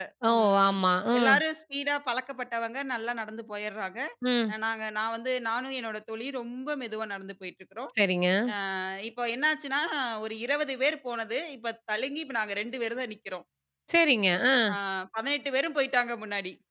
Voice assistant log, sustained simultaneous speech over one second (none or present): none